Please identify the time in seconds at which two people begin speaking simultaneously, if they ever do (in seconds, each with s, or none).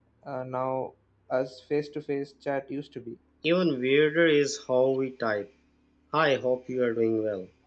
none